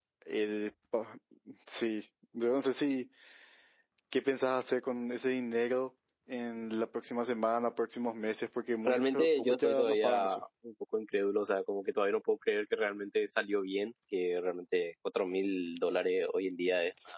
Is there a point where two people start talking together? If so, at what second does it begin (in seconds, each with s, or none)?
8.9 s